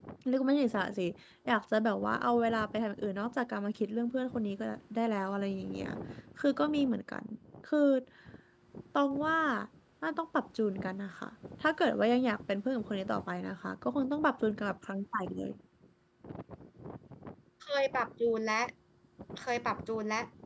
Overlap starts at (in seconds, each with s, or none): none